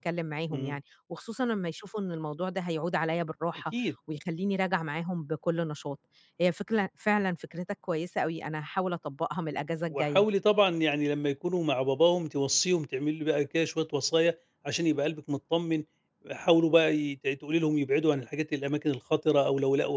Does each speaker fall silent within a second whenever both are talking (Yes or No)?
Yes